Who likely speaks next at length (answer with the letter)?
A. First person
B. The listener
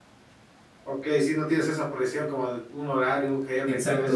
B